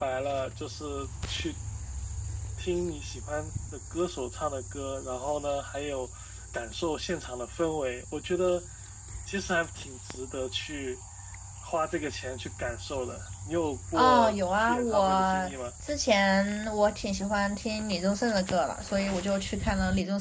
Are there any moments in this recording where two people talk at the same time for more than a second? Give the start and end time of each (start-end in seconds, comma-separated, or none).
13.9-15.5